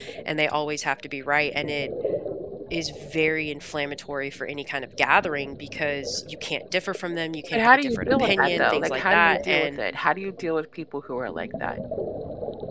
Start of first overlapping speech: 8 s

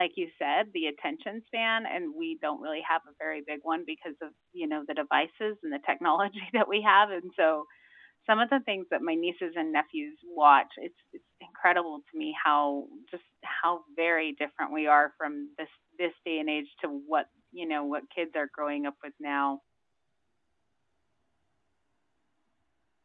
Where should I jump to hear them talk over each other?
none

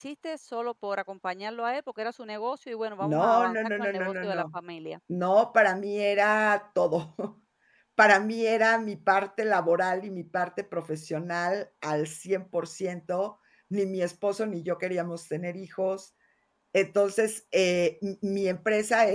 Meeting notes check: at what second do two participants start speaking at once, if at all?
3 s

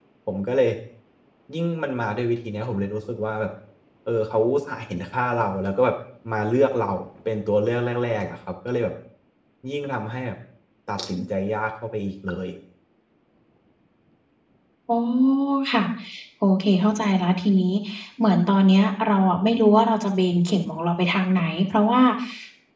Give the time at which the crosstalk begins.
none

